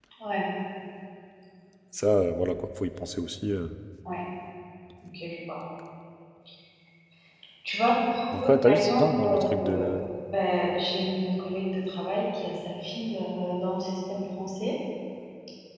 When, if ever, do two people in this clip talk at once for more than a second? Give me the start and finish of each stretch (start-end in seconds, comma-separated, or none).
8.4-9.8